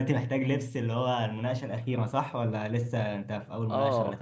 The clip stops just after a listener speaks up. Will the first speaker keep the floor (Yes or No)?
No